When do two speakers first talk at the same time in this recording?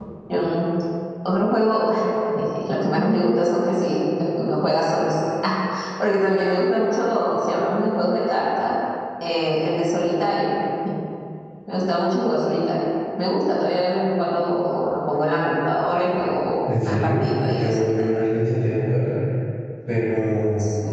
16.6 s

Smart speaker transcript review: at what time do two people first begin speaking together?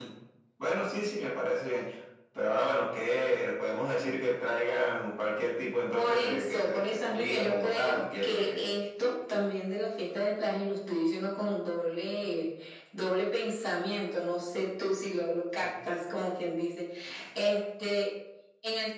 5.9 s

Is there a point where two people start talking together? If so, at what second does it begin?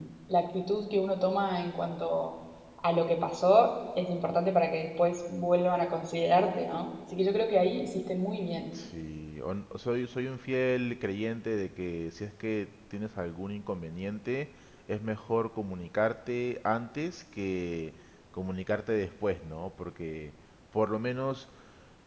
none

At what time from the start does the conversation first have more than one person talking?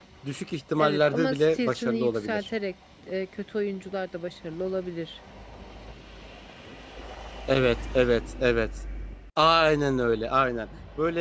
0.8 s

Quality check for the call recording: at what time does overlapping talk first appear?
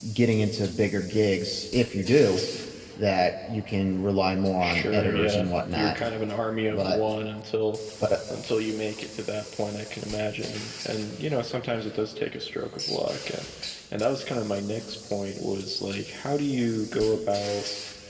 4.6 s

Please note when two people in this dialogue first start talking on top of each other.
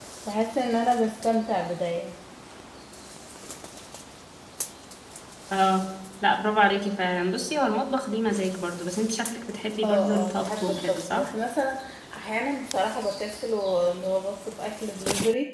9.8 s

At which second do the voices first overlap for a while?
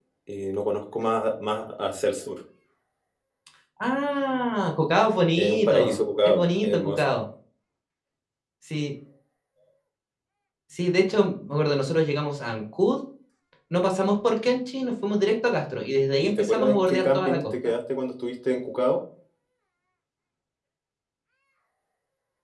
5.4 s

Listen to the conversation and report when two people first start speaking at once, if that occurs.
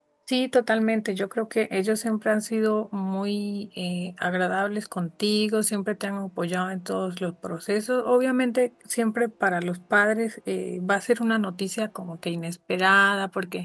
none

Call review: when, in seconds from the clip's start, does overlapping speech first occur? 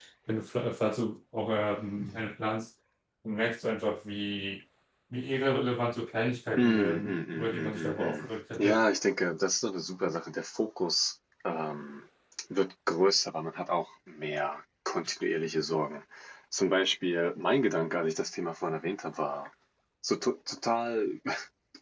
6.6 s

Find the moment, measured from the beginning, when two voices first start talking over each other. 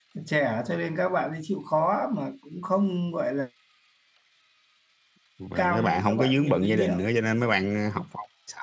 5.5 s

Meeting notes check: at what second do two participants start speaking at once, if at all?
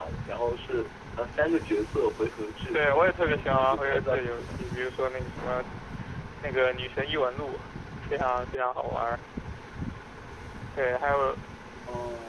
2.7 s

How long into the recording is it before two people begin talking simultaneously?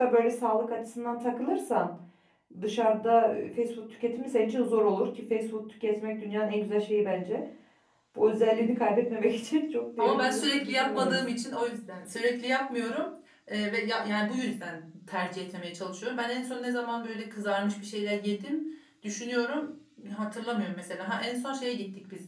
10.0 s

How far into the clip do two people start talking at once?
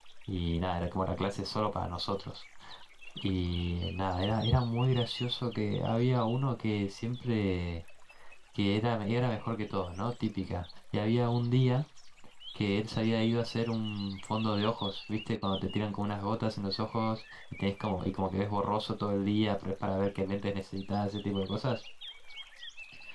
none

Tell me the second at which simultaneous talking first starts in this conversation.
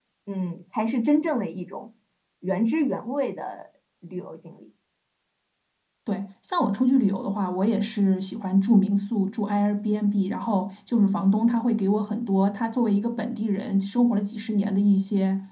none

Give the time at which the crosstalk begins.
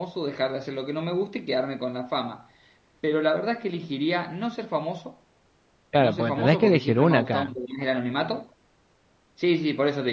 6.0 s

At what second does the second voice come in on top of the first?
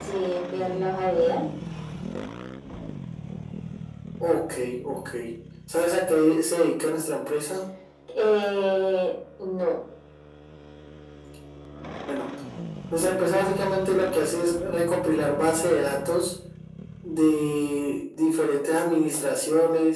none

